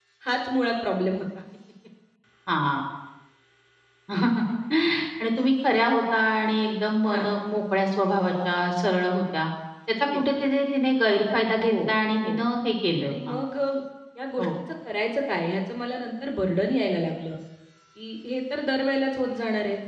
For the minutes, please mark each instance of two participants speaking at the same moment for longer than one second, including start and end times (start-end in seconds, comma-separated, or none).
none